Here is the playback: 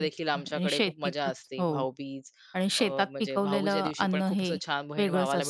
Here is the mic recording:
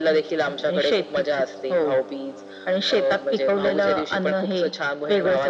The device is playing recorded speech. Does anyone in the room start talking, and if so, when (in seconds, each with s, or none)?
none